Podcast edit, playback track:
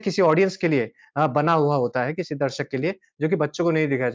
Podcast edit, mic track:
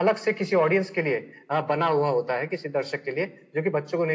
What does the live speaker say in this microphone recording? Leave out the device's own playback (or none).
none